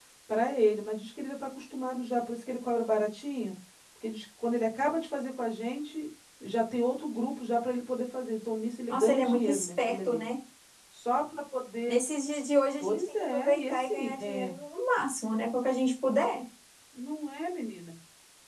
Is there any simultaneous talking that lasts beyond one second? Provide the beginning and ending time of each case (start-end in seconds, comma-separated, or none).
8.9-10.2, 12.8-14.5